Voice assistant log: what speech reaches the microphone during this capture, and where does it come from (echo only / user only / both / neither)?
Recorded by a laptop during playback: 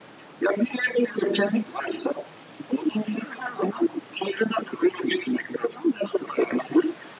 echo only